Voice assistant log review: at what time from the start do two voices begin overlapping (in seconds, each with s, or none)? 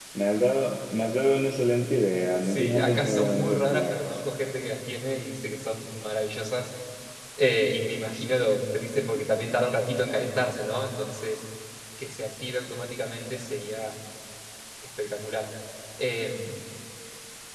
2.4 s